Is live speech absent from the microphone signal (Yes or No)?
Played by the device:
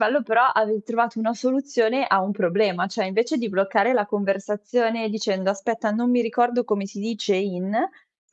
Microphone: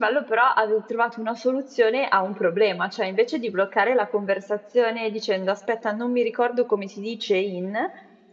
Yes